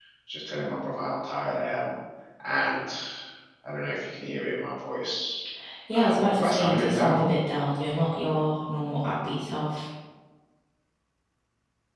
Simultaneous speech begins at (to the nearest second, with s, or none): 6 s